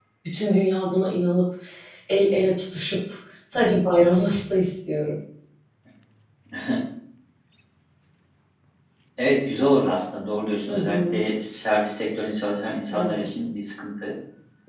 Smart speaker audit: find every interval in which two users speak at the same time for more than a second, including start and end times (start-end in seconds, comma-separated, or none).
none